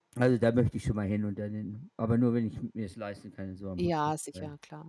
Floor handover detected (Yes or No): Yes